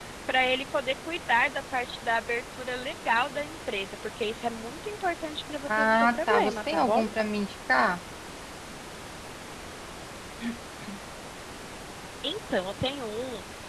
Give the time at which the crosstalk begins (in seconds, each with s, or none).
5.7 s